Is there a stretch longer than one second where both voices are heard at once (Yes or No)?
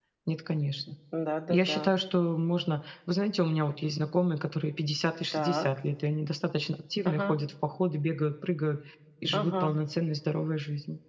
No